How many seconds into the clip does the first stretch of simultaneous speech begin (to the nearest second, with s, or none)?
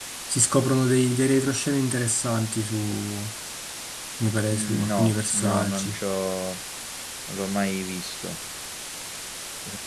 5 s